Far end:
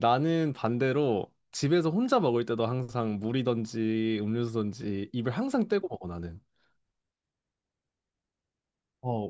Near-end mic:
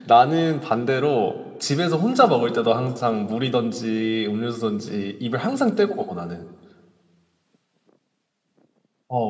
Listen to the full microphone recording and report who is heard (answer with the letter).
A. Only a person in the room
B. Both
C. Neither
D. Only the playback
D